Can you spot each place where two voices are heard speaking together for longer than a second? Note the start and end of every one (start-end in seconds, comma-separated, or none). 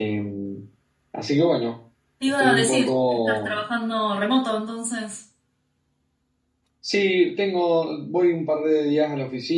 2.4-3.6